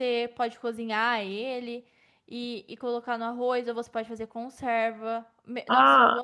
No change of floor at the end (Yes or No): No